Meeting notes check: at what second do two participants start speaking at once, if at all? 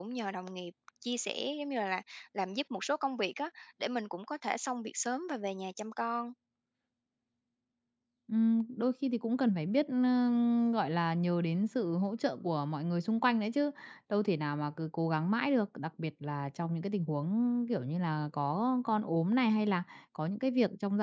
none

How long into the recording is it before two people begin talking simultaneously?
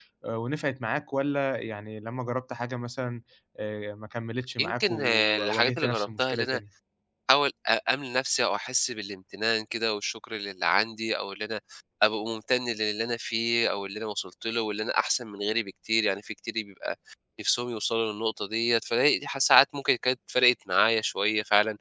4.6 s

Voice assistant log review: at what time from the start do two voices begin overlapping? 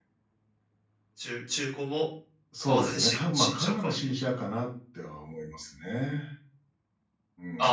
2.6 s

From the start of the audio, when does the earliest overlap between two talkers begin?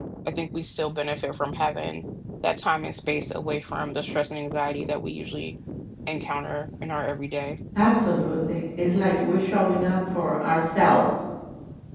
none

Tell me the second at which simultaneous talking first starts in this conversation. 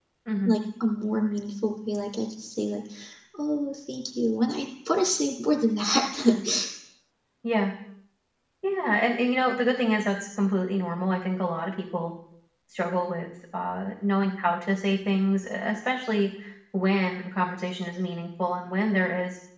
none

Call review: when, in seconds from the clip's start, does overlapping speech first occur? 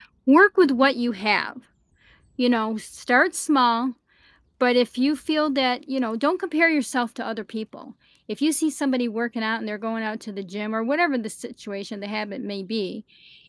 none

